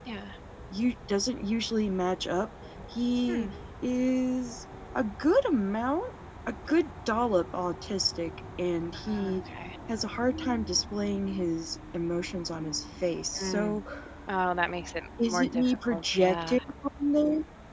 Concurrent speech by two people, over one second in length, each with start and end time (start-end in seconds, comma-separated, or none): 15.2-16.6